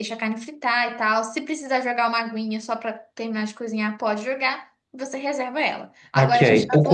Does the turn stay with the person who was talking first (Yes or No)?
No